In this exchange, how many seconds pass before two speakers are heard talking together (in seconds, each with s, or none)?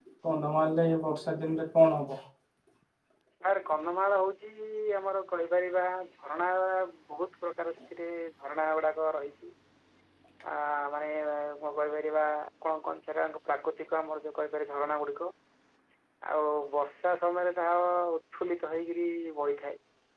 none